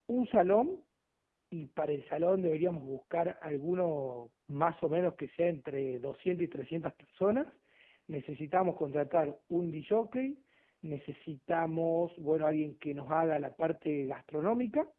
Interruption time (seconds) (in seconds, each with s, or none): none